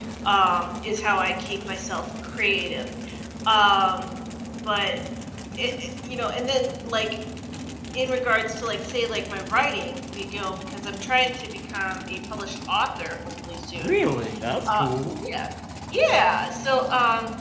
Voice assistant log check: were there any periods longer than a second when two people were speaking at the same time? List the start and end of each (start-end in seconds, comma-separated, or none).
none